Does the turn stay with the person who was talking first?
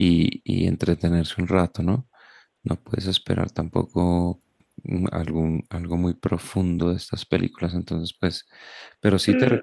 No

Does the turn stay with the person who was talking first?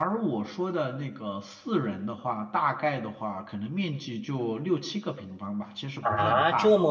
No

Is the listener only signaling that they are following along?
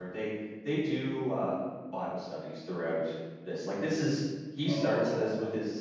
Yes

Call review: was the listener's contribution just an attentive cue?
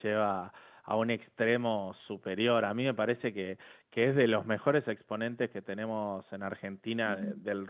Yes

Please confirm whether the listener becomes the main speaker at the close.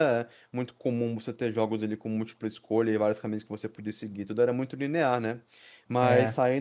No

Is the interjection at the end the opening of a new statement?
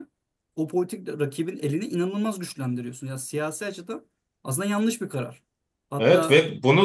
Yes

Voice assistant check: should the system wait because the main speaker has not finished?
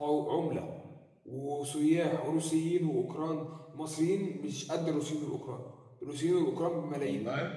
Yes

